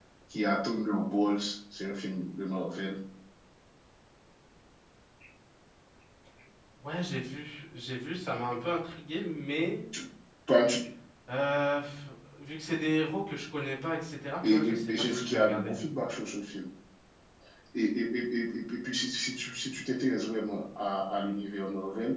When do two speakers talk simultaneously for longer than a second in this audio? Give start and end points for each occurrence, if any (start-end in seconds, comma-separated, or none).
14.4-15.7